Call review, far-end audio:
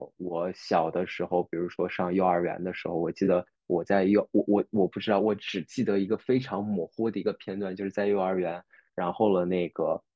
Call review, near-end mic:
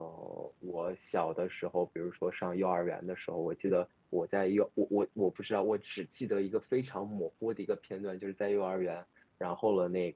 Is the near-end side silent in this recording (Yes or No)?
Yes